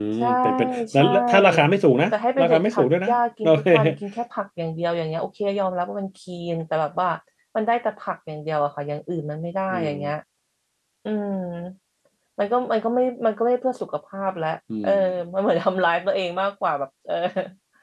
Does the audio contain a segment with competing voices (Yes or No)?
Yes